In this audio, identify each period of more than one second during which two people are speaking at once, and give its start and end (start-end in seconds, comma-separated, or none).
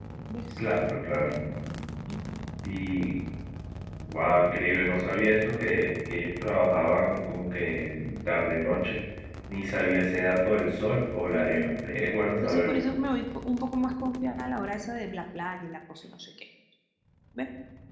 none